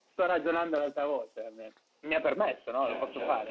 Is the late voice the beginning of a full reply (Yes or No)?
Yes